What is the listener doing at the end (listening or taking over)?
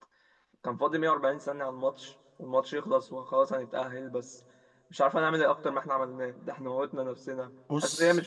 listening